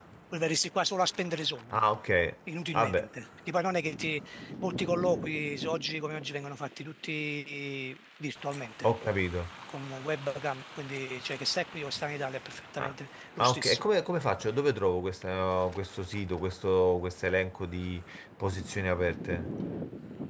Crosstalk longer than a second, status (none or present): none